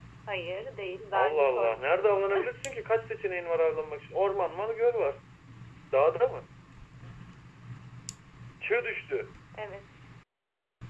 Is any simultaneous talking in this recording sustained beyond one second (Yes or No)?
Yes